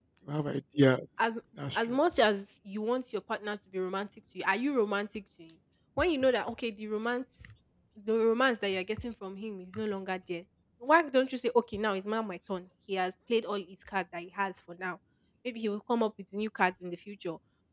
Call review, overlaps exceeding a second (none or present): none